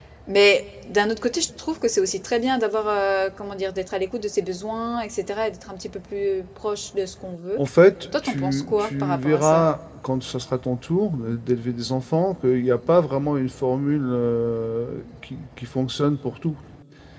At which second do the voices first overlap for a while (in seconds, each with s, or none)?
8.2 s